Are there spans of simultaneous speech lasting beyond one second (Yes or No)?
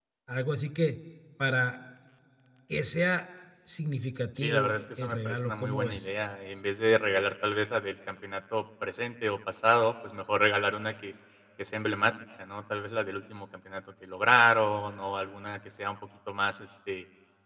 Yes